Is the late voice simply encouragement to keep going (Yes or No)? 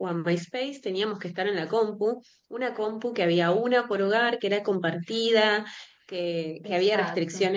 Yes